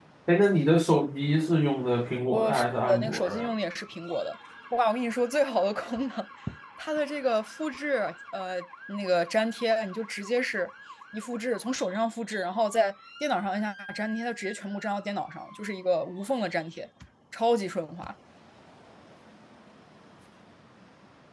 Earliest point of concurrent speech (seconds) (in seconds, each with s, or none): 2.3 s